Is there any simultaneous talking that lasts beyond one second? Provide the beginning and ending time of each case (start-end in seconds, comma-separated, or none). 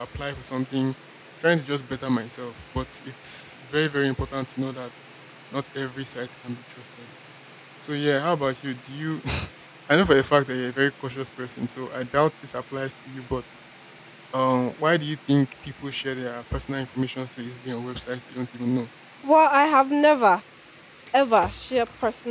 none